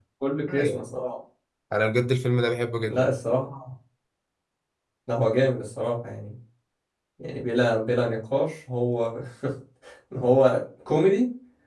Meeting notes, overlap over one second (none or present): none